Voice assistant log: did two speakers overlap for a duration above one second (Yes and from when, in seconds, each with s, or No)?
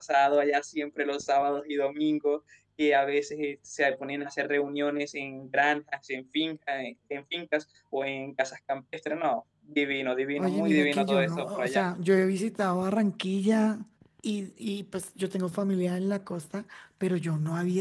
Yes, from 10.4 s